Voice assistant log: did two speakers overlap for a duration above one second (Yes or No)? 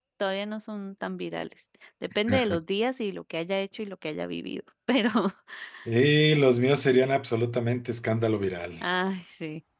No